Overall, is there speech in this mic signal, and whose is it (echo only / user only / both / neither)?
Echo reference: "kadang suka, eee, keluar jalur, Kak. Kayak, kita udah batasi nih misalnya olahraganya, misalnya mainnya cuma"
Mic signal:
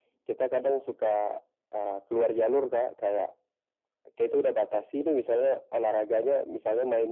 echo only